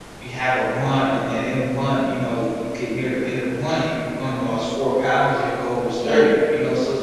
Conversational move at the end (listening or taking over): listening